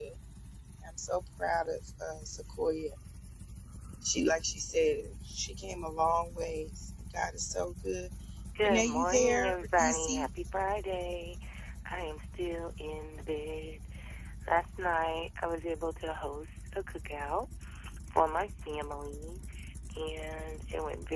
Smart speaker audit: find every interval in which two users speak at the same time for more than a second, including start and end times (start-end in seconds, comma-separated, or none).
8.6-10.3